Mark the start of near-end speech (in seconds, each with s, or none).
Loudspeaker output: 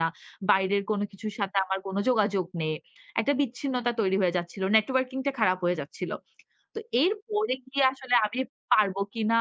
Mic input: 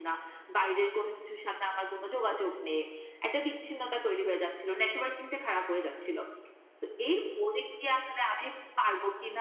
none